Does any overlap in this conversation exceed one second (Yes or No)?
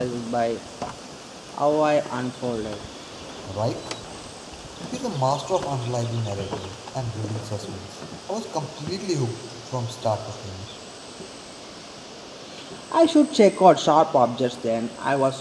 No